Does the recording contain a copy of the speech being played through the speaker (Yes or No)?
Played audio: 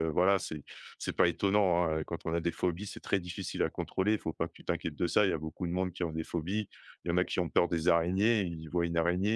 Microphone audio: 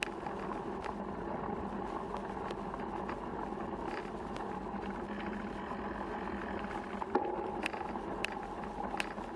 No